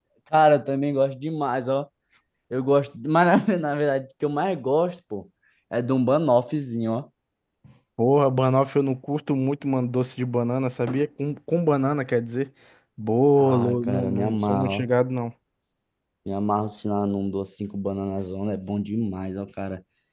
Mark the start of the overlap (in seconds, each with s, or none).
13.4 s